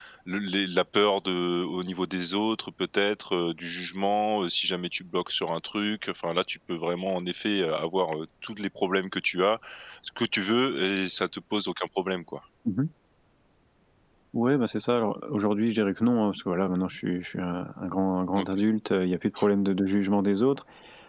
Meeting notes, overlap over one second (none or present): none